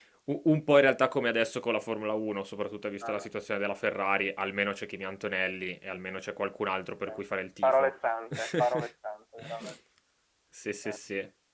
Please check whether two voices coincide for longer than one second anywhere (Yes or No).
No